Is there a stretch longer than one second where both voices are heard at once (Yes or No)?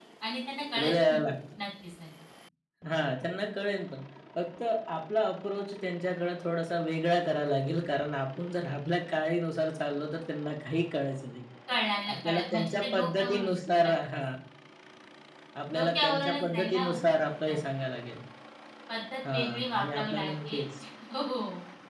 Yes